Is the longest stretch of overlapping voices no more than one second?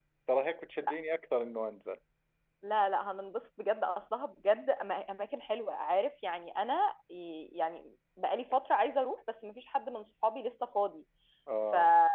Yes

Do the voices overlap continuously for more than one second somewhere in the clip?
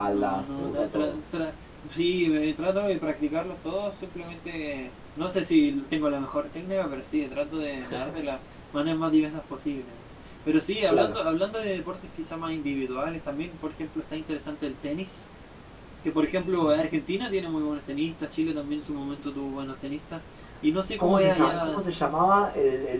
Yes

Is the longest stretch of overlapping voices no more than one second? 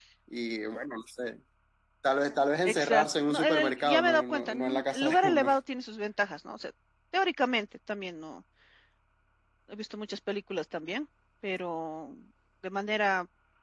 No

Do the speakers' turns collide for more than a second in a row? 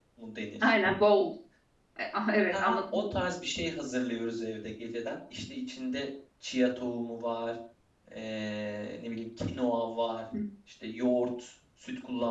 No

